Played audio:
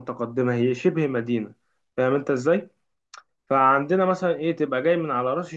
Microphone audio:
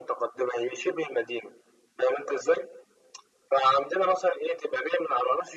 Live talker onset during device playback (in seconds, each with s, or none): none